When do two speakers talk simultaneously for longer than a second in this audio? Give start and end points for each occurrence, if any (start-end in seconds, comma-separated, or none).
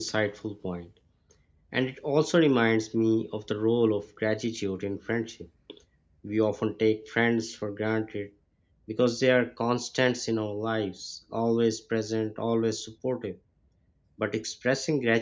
none